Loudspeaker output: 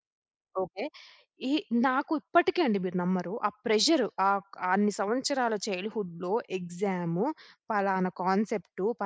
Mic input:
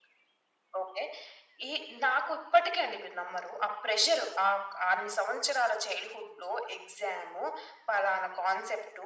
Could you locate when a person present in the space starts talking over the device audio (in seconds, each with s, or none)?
none